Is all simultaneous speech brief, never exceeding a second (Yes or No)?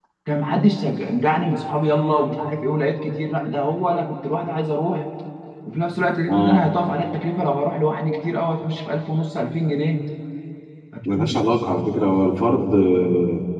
Yes